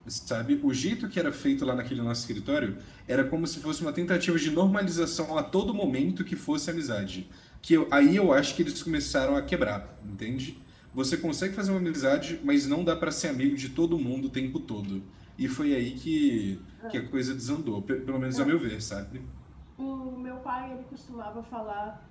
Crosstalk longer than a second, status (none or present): none